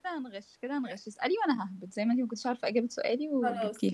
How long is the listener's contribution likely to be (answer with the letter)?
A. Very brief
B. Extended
B